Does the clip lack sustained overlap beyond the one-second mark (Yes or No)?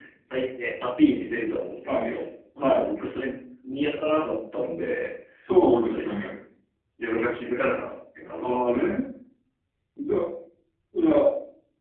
Yes